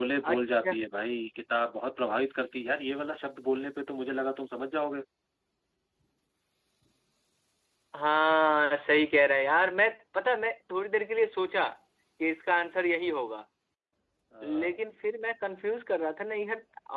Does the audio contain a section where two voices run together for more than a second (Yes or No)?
No